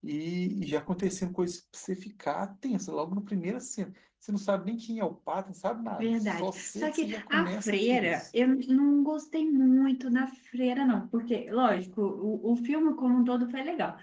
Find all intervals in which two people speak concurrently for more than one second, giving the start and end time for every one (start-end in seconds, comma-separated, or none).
6.0-8.3